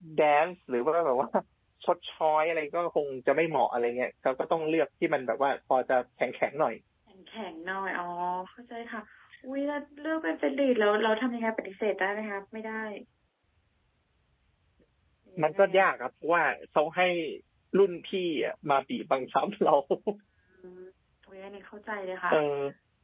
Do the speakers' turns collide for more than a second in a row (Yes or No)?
No